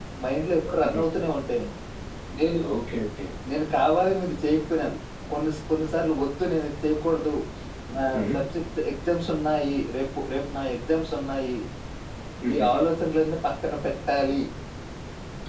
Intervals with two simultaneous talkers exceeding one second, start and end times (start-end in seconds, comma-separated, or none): none